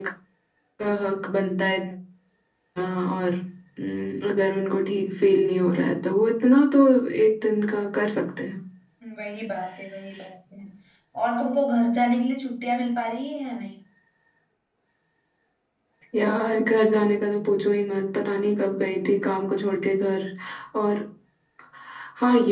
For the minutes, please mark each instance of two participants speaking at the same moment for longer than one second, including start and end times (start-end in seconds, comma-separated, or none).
none